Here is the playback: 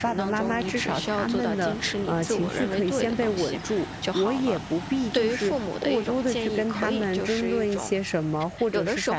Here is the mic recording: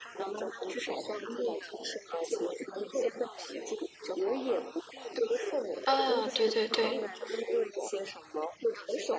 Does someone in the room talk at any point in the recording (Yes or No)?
Yes